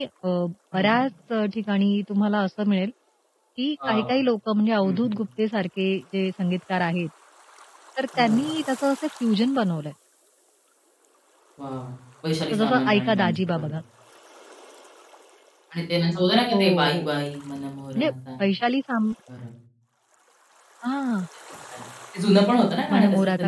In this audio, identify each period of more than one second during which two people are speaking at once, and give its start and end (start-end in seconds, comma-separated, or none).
12.5-13.7